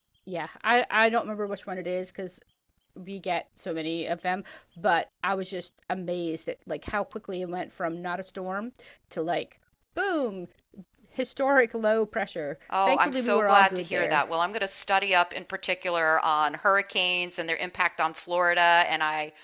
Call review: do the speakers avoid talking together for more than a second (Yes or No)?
No